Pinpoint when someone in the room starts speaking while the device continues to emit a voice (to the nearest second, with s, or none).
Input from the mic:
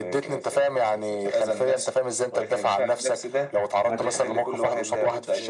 4 s